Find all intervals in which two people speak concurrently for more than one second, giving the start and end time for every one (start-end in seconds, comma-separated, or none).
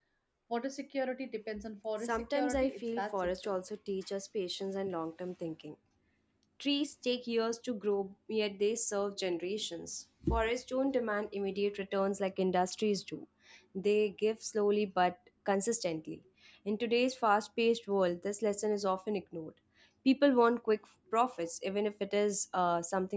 2.0-3.6